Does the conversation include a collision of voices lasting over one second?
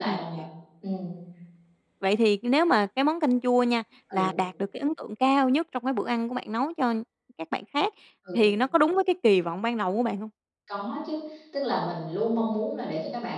No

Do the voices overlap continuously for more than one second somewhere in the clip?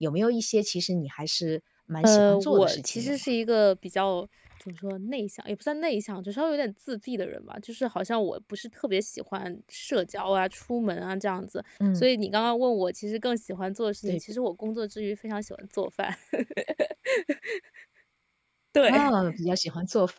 Yes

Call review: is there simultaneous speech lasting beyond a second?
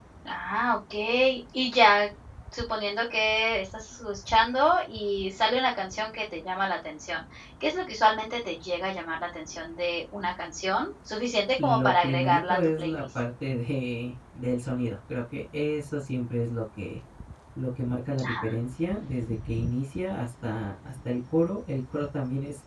Yes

